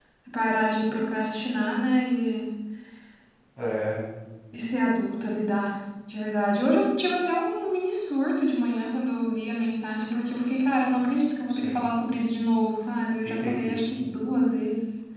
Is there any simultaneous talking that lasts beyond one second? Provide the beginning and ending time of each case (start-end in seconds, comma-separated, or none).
none